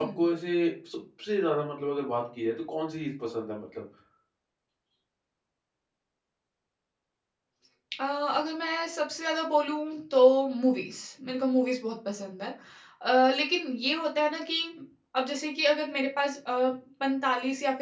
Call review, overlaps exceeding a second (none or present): none